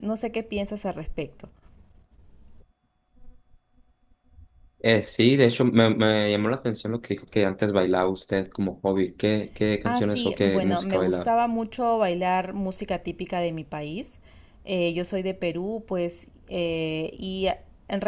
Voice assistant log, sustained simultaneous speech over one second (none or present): present